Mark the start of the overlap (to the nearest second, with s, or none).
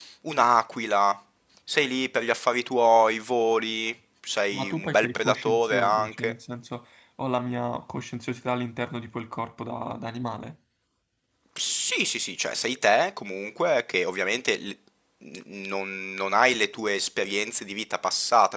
5 s